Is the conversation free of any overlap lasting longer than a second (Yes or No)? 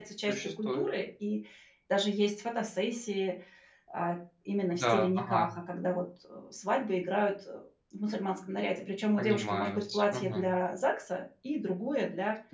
No